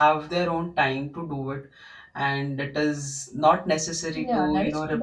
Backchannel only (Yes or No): No